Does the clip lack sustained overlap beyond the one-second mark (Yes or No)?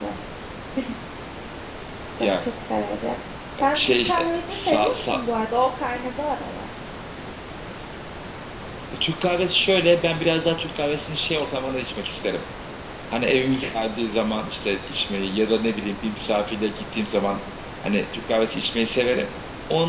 No